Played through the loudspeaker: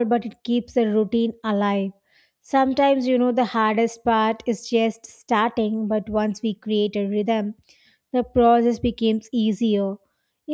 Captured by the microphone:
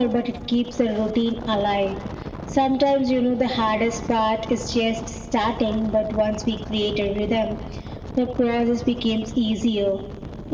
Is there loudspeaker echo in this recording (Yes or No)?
Yes